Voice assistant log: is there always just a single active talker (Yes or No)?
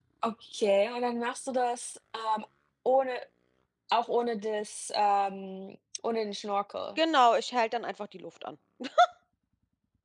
Yes